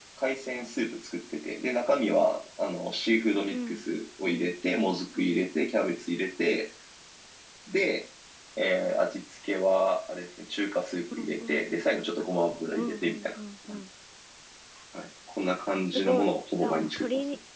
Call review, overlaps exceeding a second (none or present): present